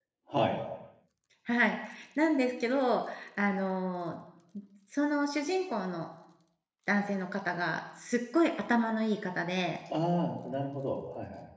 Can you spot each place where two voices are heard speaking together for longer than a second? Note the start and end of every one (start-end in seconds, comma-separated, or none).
none